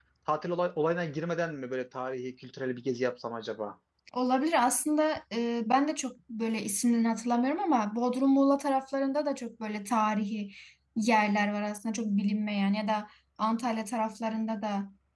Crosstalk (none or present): none